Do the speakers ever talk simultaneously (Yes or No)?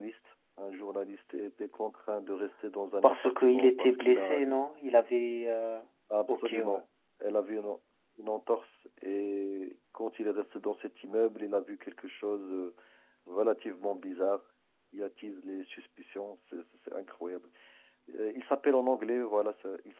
Yes